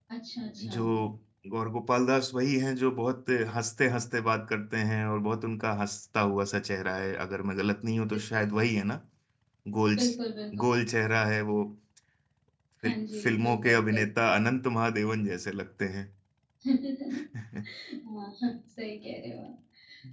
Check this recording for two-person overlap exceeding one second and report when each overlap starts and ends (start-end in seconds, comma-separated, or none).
12.8-14.1